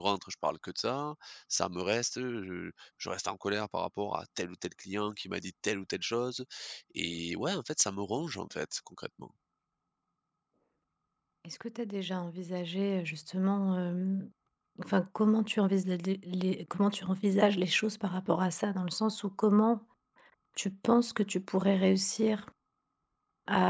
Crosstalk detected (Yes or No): No